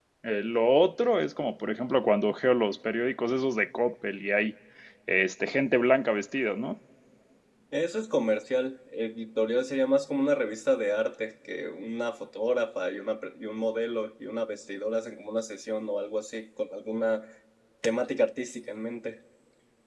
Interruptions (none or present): none